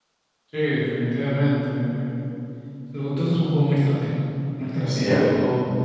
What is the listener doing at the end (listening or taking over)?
listening